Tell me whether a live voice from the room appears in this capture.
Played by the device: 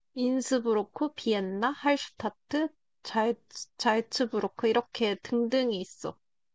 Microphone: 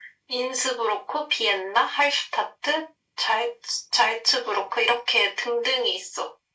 No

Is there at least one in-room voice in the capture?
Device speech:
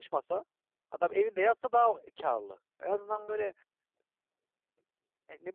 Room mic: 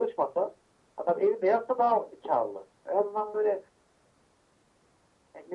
No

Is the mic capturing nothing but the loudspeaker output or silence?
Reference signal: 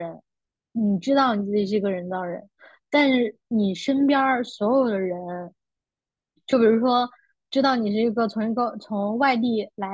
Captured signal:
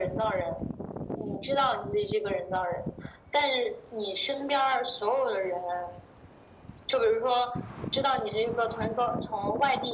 Yes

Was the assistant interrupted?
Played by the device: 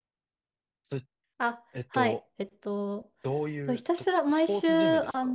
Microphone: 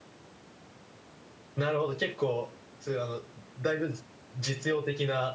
Yes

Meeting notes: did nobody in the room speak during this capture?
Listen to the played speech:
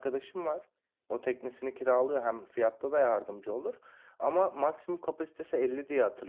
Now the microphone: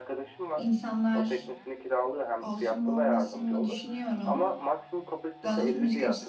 No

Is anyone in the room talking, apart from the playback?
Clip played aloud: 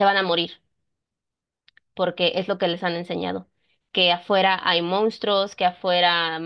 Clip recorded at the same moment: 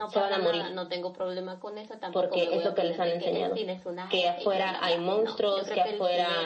Yes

